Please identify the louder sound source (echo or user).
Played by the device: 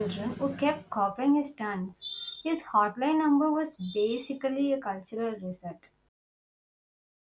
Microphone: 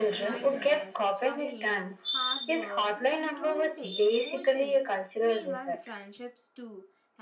echo